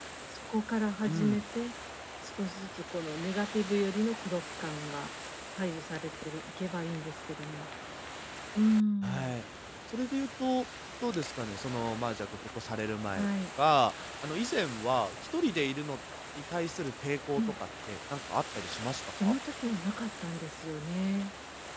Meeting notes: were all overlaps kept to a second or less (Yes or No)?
Yes